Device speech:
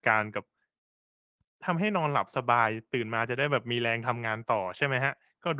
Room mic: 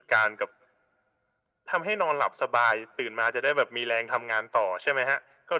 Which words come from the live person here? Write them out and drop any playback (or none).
none